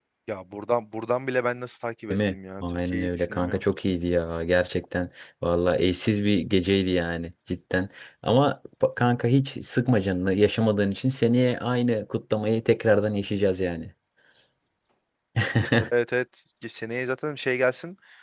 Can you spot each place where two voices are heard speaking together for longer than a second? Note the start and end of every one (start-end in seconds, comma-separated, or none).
2.1-3.6